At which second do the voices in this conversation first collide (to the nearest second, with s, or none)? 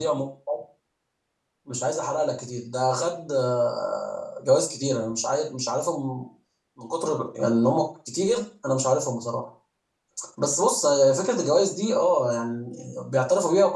none